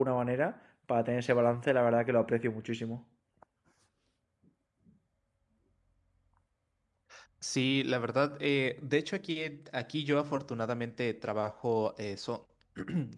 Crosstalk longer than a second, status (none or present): none